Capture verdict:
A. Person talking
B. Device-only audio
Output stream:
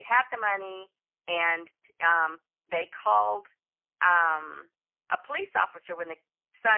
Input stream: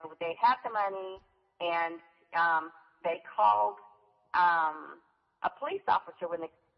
B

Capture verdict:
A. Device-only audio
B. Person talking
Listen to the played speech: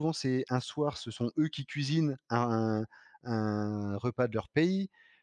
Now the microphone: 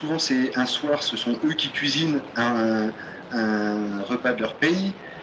A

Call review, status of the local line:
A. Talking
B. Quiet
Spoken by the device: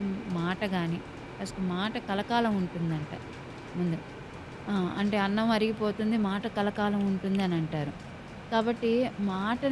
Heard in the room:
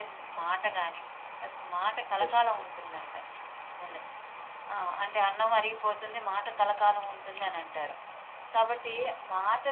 A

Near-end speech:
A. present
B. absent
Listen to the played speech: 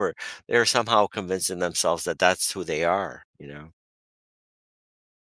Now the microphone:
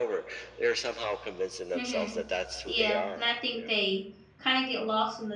A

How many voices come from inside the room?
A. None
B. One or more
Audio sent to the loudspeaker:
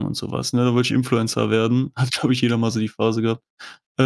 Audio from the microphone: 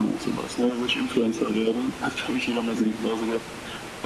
A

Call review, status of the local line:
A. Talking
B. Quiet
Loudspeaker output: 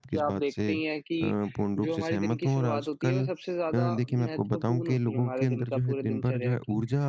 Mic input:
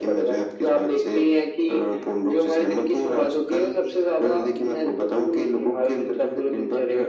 B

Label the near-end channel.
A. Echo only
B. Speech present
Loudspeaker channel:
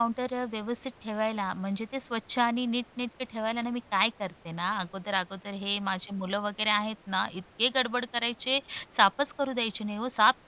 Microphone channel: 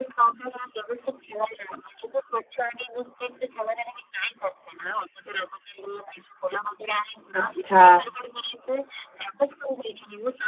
B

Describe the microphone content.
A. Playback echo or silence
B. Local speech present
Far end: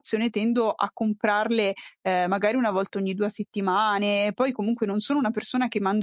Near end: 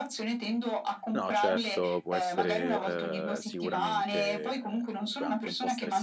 B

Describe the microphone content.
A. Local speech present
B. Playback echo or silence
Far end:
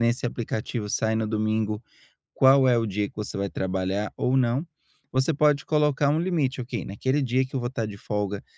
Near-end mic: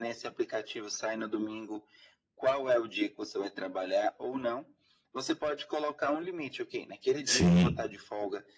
A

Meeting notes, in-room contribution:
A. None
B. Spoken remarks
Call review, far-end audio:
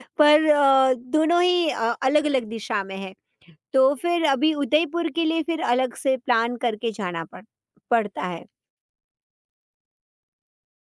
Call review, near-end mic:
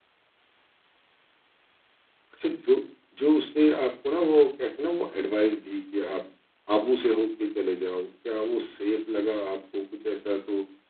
B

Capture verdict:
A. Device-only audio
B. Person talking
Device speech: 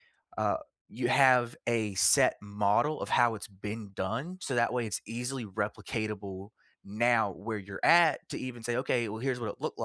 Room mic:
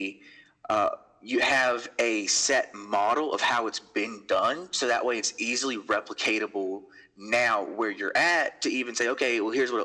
A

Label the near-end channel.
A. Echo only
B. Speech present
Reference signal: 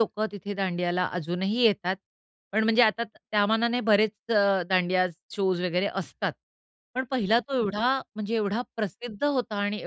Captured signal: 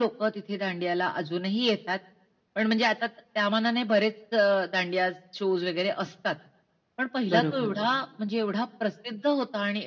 B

